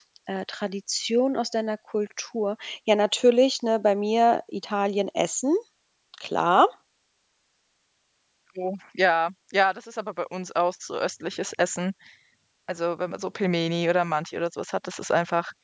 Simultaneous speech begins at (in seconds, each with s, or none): none